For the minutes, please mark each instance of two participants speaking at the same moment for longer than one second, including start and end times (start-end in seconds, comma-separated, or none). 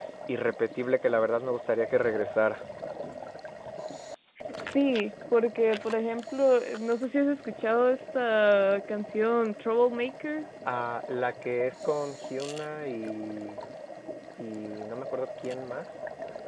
none